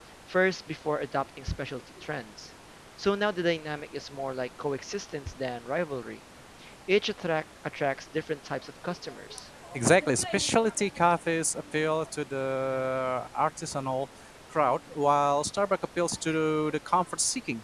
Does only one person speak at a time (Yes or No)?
Yes